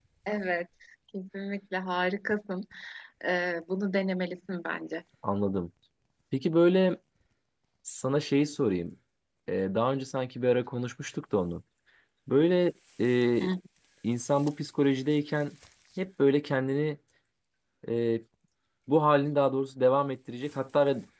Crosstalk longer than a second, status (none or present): none